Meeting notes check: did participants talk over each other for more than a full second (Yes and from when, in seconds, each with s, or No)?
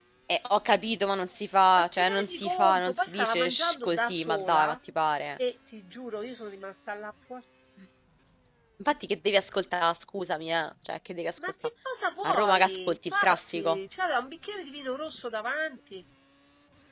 Yes, from 1.8 s